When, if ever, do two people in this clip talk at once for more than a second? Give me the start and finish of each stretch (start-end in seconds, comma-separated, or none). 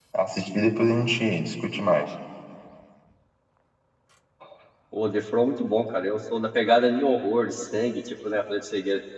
none